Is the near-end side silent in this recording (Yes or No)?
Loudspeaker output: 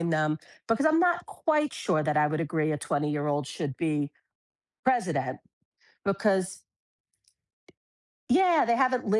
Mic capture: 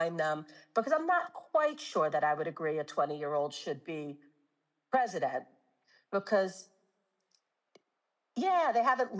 Yes